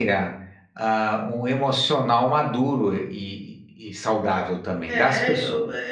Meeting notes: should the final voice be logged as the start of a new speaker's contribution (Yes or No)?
Yes